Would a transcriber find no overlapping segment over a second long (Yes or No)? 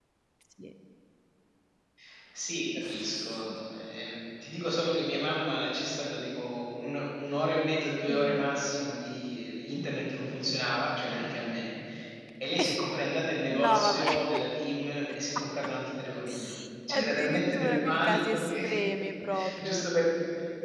No